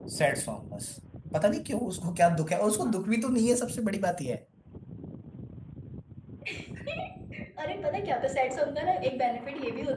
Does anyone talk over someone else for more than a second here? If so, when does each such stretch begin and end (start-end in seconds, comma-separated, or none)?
none